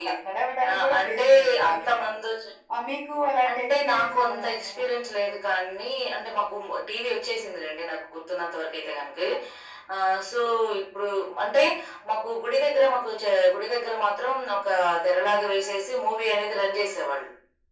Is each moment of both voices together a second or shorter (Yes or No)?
No